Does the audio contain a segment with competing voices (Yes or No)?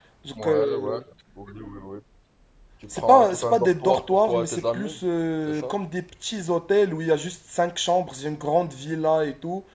Yes